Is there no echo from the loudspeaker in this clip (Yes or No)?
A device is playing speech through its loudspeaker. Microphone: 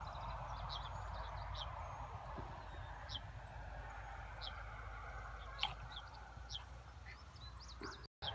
Yes